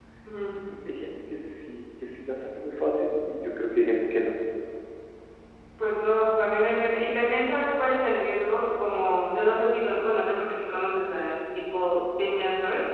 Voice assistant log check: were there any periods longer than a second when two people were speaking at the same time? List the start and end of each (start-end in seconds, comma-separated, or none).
none